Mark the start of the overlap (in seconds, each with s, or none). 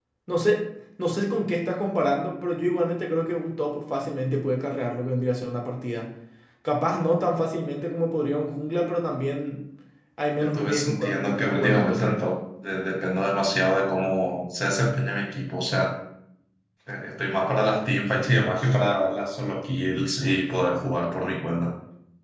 10.4 s